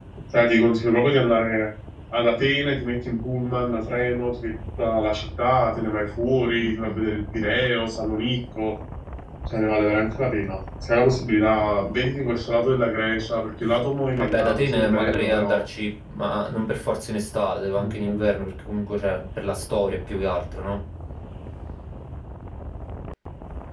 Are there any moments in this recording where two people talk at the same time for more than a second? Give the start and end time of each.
14.2-15.6

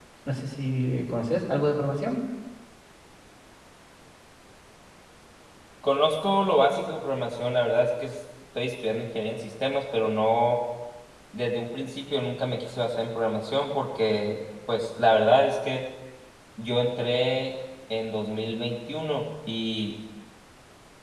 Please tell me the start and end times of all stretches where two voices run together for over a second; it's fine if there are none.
none

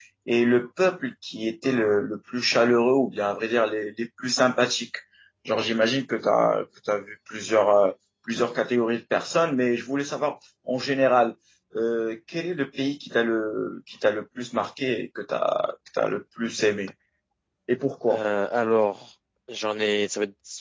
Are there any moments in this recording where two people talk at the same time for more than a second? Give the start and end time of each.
none

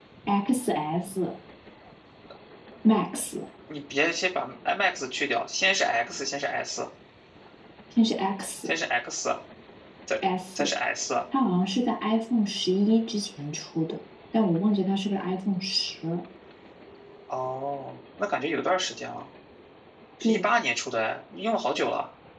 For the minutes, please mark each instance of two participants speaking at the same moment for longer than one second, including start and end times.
none

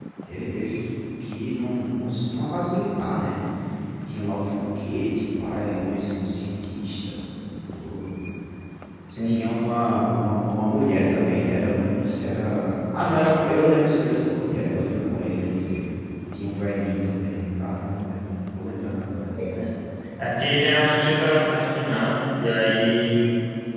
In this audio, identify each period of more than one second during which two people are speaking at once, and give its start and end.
none

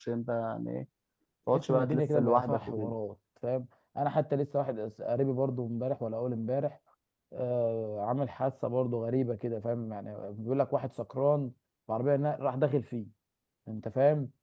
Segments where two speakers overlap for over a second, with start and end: 1.5-2.9

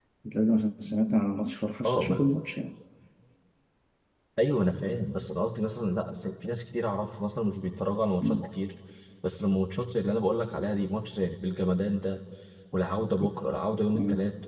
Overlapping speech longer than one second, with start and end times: none

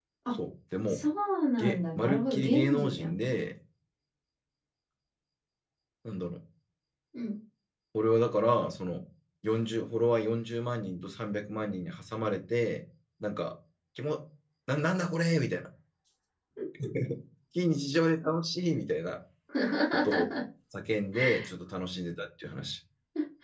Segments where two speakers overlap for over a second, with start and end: 1.6-3.1

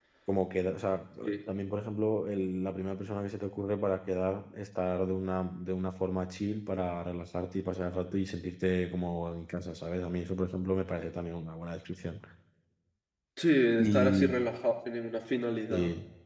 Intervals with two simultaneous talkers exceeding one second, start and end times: none

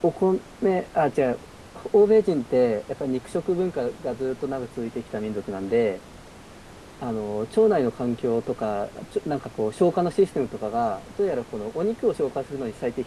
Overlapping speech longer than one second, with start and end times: none

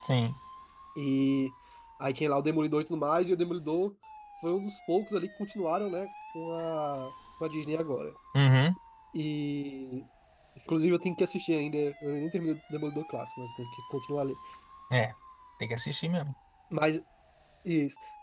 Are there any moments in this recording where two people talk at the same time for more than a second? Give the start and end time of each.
none

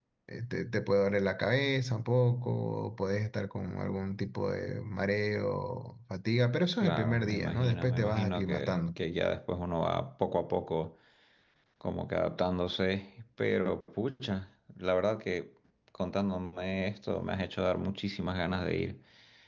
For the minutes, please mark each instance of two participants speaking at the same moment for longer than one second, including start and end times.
6.8-8.8

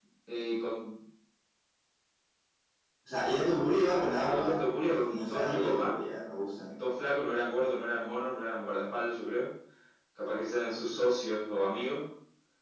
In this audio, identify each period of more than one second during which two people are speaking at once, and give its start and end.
3.8-5.9

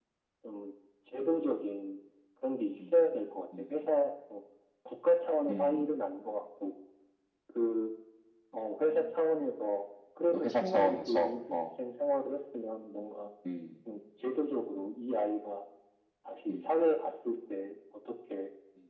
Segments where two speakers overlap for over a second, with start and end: 10.3-11.6

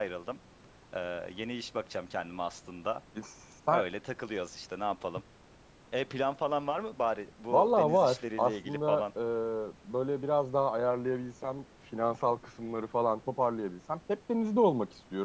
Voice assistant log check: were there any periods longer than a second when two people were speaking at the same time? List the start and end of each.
7.5-9.0

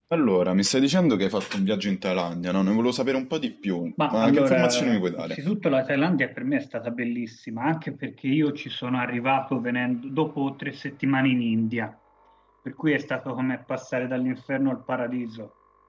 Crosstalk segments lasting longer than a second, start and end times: 4.1-5.4

